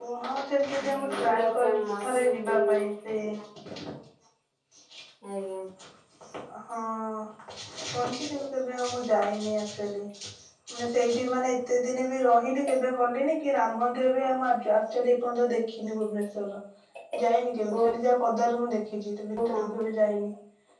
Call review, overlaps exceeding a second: present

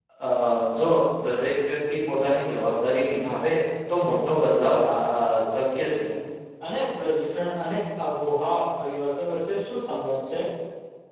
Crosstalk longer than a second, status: none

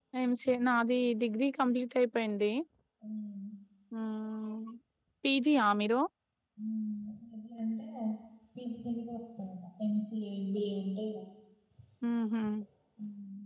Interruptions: none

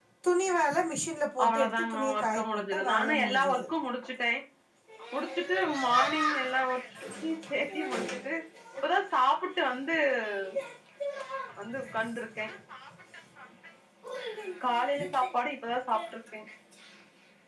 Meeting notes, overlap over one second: present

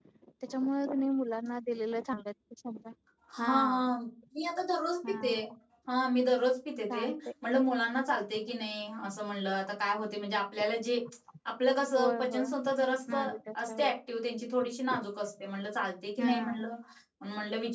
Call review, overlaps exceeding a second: none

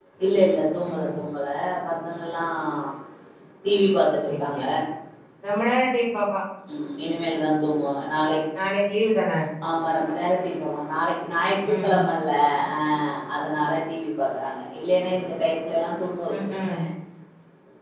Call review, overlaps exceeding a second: none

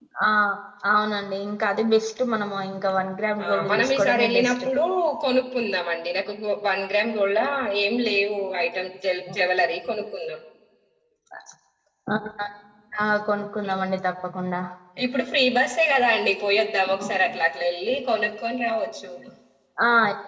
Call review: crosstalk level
present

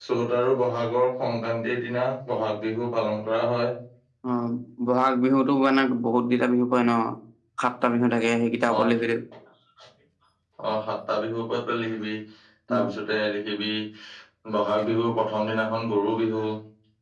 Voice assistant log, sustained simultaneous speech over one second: none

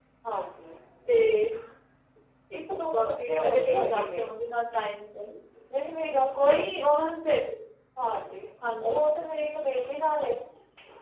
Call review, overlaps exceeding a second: present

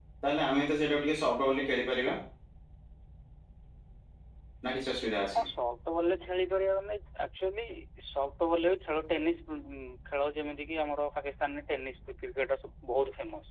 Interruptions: none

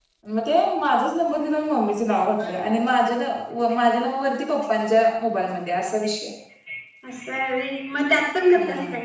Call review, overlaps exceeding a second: none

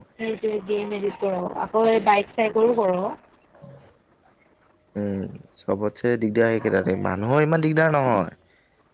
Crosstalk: none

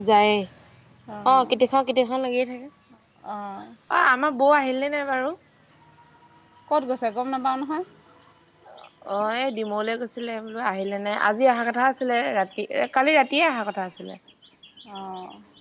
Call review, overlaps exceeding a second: none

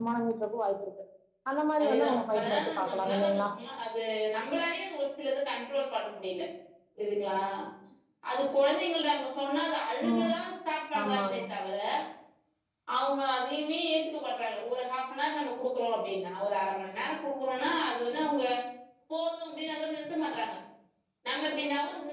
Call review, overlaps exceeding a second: present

